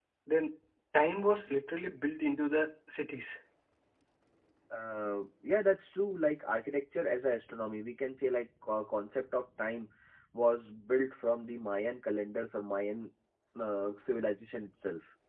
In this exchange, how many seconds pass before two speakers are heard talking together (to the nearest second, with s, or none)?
none